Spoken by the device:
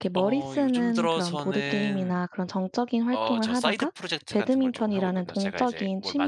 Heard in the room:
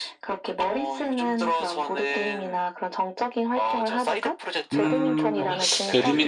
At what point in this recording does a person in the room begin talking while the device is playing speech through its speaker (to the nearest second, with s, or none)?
5 s